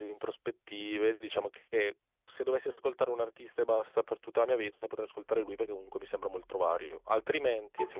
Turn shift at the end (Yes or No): Yes